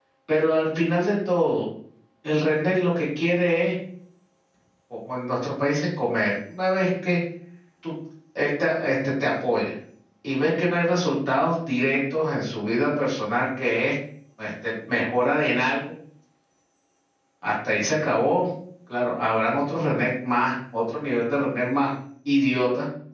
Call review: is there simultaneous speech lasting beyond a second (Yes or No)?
No